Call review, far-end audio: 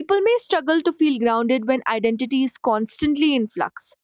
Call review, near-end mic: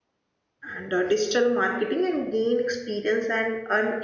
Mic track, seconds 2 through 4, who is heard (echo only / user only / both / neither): user only